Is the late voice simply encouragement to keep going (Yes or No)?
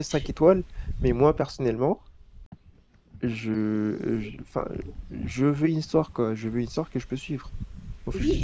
No